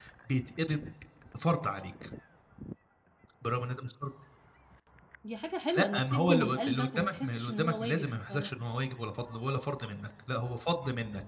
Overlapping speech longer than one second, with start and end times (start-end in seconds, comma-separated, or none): 5.8-8.5